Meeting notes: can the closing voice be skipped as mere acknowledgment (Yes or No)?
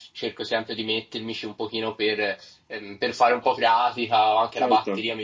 Yes